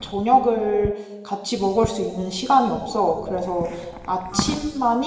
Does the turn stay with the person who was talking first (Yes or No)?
Yes